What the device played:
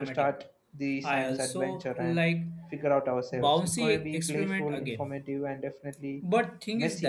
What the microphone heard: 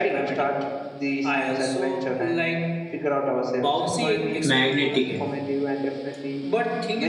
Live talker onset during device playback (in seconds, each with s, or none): 4.4 s